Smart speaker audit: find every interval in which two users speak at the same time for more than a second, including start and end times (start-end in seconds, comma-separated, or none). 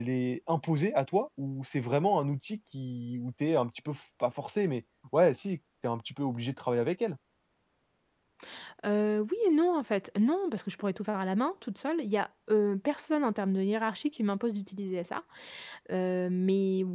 none